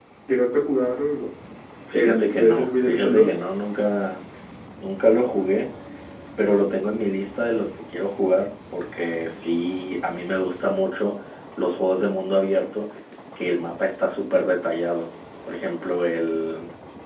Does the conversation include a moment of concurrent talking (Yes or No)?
Yes